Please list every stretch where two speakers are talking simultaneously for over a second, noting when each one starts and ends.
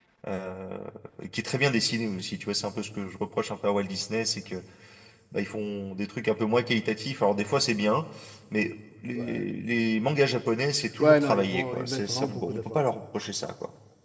11.0-12.8

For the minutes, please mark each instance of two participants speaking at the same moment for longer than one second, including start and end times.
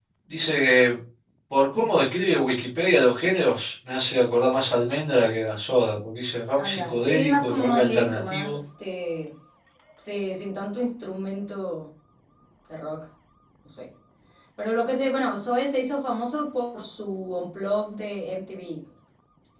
6.6-8.6

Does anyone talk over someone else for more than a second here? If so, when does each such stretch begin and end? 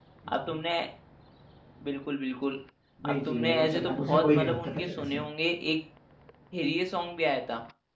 3.1-5.2

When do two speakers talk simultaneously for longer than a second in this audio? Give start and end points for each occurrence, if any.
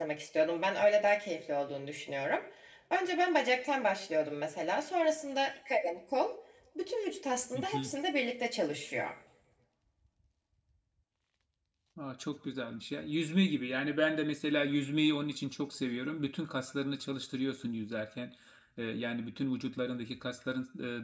none

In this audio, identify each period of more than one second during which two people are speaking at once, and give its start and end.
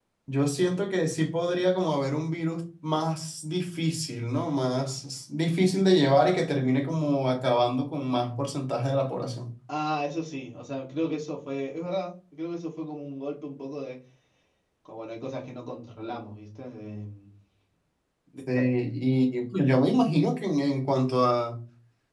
none

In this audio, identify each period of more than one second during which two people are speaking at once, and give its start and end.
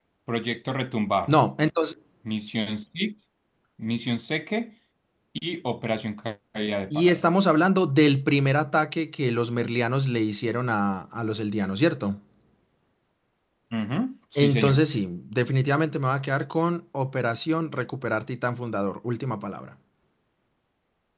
none

